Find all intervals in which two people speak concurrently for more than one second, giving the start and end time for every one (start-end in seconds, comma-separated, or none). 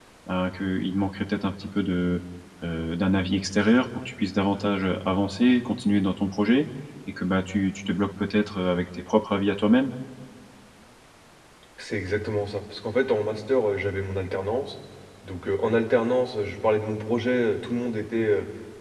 none